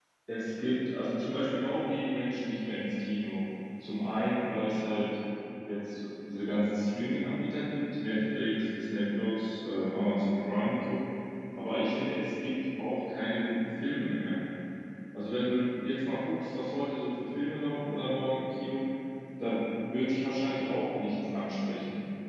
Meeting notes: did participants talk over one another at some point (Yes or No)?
No